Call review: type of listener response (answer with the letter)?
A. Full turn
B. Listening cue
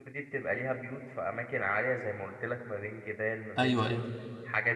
B